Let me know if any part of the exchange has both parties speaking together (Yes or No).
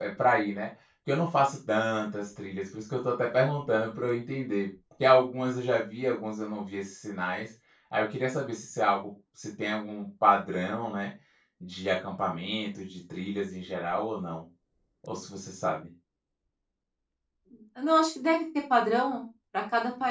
No